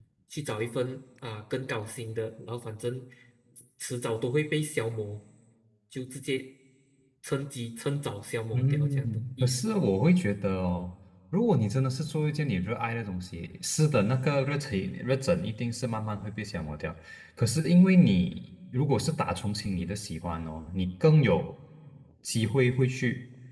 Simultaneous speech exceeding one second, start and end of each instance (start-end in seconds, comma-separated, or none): 8.5-9.8